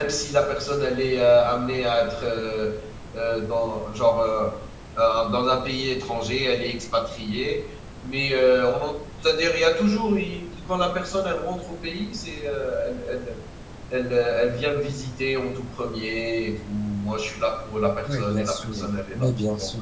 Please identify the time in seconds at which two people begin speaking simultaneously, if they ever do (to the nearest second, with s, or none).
18 s